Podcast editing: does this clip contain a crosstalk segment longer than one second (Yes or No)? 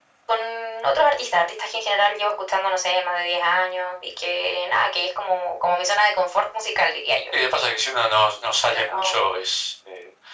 No